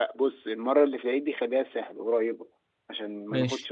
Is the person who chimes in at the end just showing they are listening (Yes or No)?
Yes